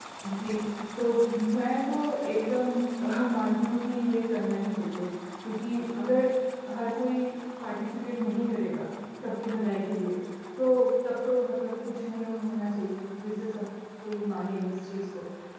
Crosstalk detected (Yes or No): No